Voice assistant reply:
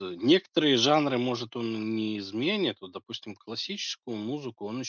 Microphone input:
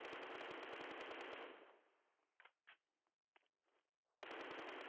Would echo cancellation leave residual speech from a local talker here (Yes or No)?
No